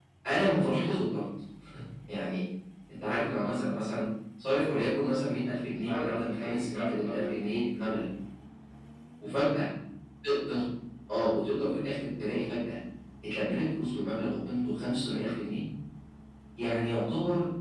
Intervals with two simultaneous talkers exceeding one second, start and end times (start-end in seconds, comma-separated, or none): 5.9-7.6